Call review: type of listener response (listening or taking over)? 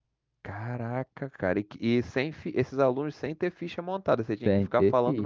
taking over